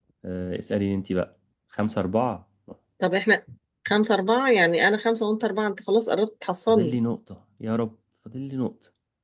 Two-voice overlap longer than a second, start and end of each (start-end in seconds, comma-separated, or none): none